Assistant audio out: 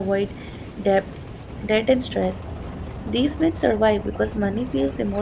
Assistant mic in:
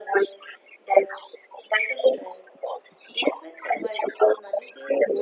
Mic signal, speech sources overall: echo only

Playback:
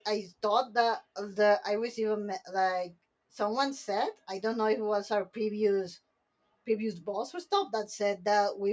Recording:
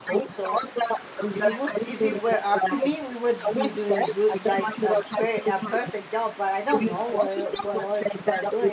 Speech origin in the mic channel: both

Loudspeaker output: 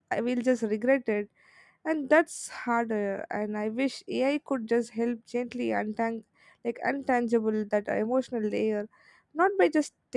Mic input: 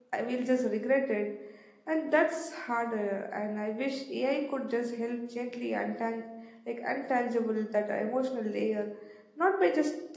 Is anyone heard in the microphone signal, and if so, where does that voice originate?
echo only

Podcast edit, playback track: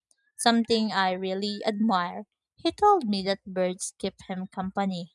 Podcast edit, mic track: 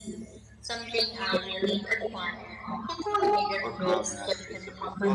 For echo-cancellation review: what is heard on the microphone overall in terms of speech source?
both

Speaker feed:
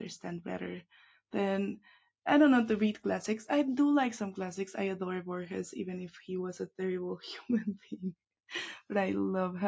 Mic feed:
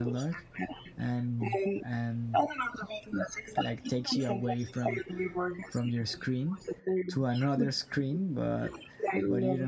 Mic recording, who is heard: both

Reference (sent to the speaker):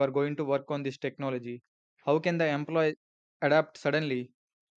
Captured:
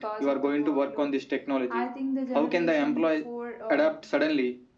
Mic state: both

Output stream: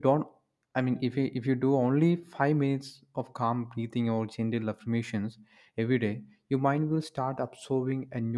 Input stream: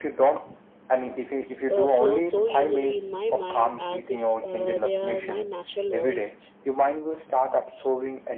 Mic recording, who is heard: both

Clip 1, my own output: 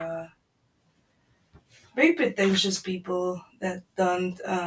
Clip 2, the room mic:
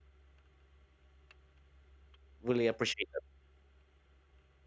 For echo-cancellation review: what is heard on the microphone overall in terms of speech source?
user only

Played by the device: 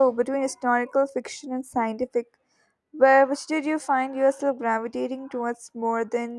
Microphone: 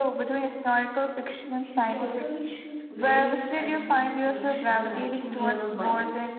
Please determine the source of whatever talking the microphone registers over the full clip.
both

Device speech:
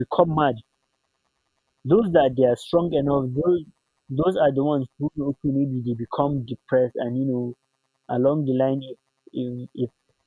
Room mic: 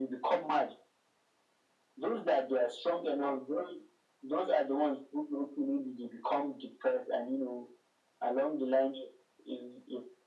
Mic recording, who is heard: echo only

